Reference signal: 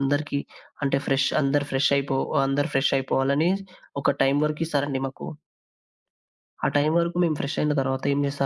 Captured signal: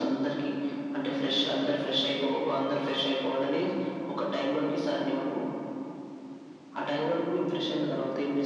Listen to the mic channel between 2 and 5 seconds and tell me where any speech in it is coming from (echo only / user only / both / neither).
echo only